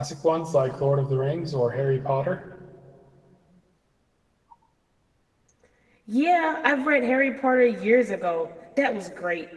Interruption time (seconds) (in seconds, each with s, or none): none